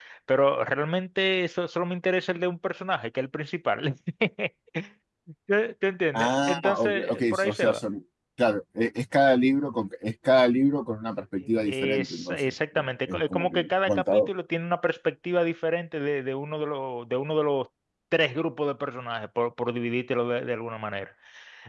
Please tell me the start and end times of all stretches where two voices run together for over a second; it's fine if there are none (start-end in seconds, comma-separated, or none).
6.1-7.8, 11.6-14.3